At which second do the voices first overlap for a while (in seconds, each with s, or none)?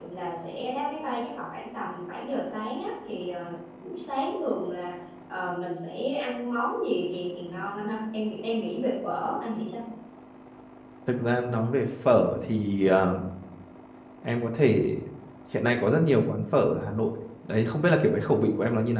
none